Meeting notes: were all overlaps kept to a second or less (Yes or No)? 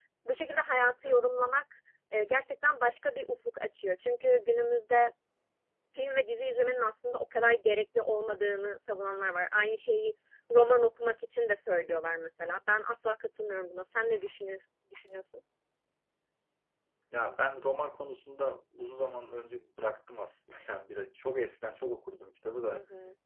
Yes